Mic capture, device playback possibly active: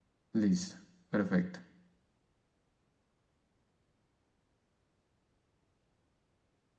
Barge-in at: 0 s

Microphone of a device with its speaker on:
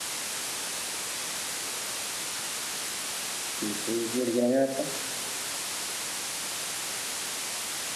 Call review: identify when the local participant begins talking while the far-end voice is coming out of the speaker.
4 s

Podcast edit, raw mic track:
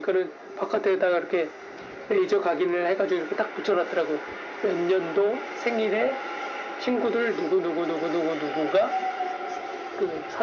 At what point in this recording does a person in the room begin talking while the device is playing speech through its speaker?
none

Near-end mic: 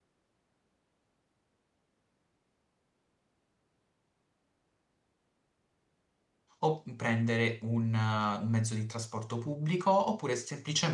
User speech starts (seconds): 7 s

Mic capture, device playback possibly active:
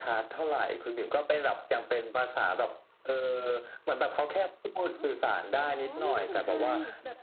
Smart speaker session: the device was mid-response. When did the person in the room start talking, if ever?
5 s

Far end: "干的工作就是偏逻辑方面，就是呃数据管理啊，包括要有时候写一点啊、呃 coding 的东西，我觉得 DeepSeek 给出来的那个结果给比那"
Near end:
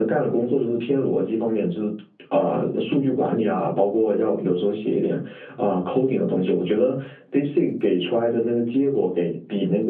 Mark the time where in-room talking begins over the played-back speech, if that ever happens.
none

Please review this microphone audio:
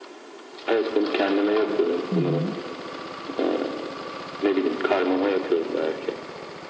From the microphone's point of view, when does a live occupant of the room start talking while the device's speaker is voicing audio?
2 s

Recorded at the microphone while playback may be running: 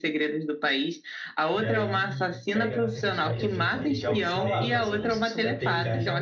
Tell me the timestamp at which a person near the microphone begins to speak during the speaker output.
2 s

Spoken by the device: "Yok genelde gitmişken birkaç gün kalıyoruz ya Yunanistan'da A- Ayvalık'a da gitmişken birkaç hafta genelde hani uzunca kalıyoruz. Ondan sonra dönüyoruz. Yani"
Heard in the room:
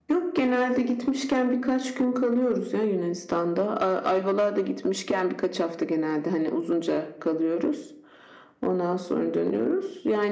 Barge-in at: none

